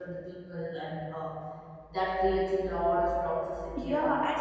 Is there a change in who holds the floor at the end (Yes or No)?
Yes